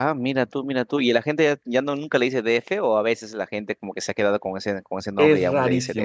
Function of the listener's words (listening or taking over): taking over